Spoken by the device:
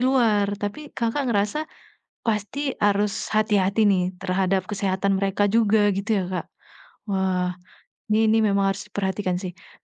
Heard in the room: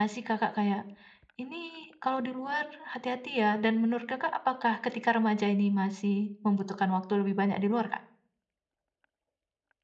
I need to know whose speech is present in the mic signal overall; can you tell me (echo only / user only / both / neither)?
user only